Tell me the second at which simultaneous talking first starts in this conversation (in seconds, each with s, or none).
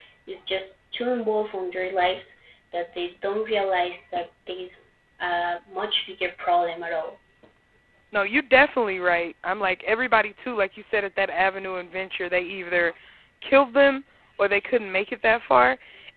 none